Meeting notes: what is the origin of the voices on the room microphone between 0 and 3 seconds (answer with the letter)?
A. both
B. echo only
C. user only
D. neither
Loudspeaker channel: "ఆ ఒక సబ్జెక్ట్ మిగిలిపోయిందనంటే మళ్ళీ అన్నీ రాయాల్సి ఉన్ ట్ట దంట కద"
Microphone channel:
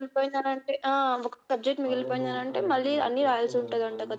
A